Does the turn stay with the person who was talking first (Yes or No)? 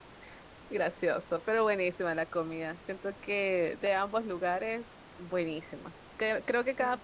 Yes